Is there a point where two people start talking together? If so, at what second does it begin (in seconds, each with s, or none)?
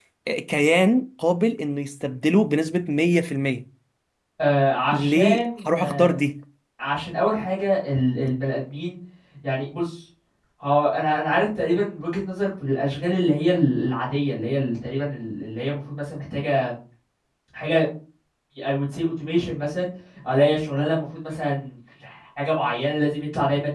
4.9 s